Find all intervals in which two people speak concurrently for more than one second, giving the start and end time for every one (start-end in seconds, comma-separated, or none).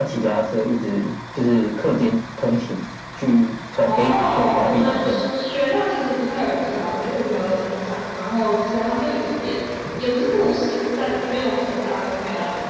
3.9-5.3